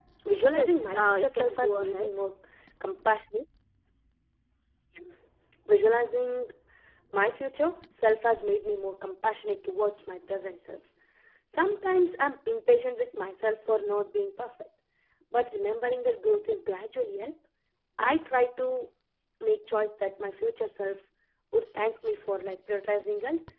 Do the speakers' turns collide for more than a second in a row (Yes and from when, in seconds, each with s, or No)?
Yes, from 0.5 s